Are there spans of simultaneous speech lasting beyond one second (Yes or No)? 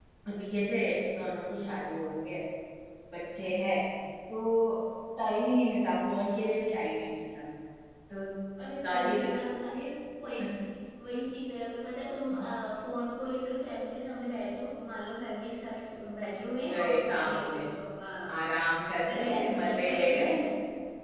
Yes